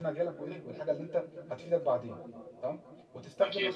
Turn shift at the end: No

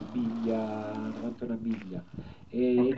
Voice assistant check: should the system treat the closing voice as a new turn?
No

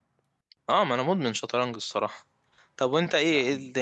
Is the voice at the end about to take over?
No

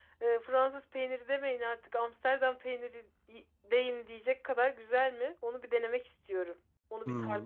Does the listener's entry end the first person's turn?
Yes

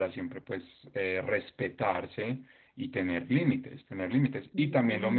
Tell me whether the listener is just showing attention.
Yes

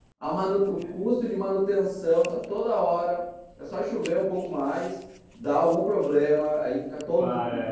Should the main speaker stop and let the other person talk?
No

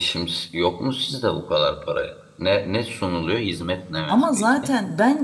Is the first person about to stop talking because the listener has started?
Yes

